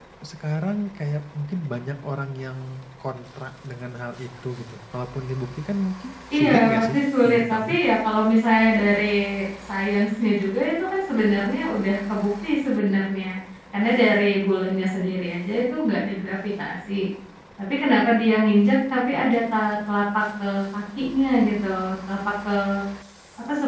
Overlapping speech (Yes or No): Yes